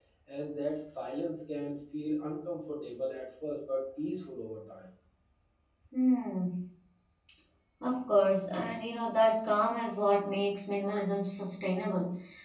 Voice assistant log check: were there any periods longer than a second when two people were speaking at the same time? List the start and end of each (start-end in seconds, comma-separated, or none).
none